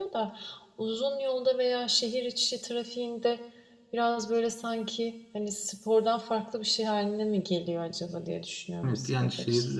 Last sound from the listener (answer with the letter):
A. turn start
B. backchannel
A